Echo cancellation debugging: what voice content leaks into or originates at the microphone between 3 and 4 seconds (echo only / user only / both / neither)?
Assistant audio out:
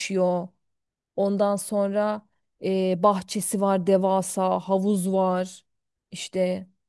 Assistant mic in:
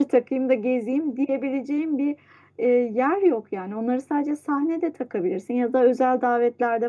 user only